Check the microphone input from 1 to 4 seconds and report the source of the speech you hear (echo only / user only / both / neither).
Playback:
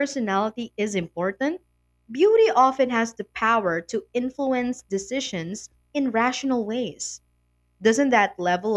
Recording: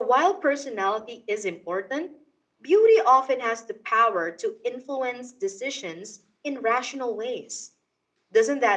echo only